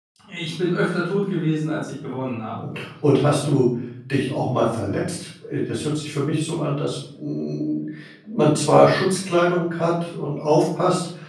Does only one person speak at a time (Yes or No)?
Yes